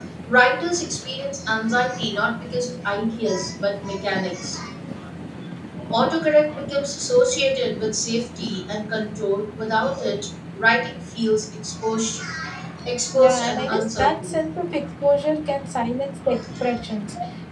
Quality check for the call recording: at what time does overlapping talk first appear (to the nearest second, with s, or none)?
13 s